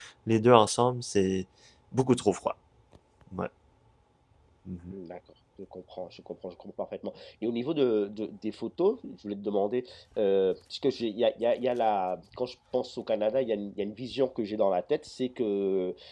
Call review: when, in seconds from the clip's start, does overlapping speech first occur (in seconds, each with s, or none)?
none